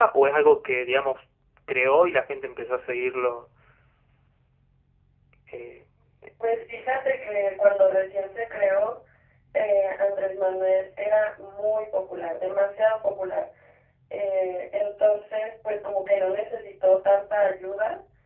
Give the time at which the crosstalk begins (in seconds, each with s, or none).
none